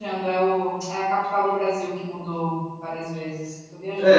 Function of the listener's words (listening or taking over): taking over